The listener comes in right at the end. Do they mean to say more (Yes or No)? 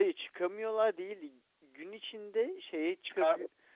No